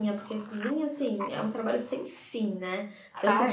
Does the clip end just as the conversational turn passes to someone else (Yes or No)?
No